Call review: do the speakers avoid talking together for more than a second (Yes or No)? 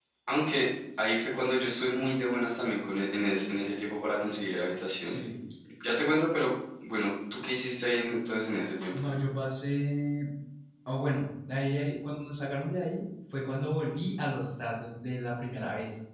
Yes